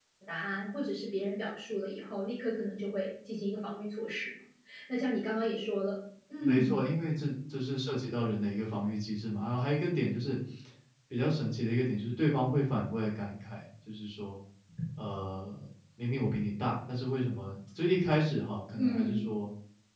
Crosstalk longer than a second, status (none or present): none